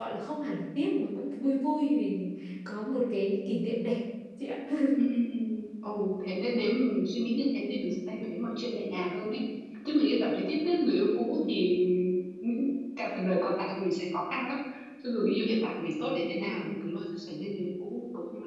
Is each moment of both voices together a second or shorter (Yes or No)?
Yes